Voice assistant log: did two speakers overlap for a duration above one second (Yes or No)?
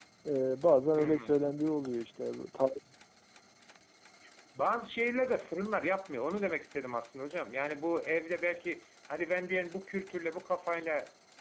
No